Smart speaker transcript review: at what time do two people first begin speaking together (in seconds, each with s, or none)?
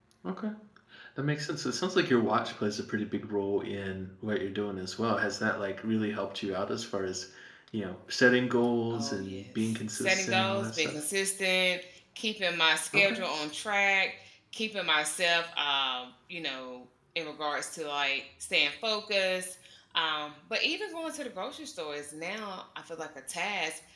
8.9 s